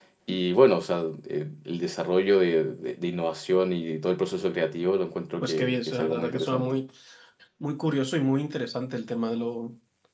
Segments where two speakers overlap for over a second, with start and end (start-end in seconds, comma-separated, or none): 5.4-6.8